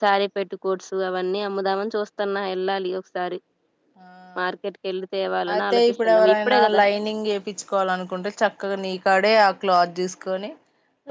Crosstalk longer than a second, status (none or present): present